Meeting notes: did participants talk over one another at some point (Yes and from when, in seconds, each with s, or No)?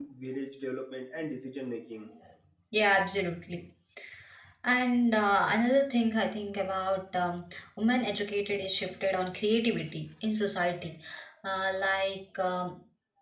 No